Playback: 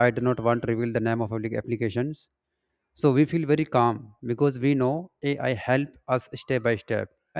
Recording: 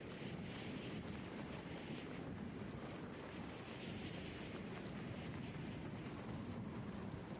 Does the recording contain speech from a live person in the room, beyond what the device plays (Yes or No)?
No